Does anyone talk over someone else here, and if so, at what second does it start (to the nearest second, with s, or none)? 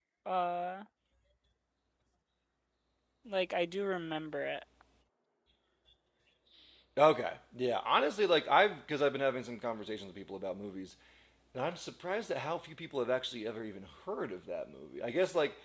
none